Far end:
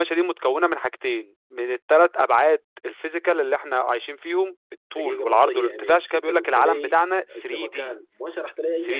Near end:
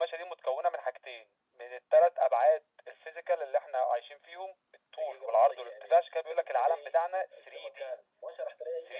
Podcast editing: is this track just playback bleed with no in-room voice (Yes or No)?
Yes